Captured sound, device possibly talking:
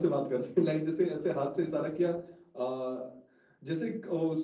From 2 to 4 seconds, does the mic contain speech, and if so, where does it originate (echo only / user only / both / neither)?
echo only